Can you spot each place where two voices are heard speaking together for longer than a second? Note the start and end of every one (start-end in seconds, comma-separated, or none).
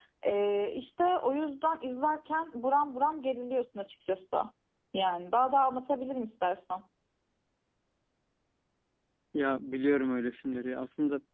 none